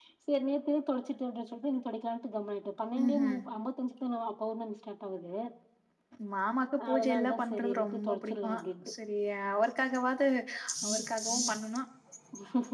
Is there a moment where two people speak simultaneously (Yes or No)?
Yes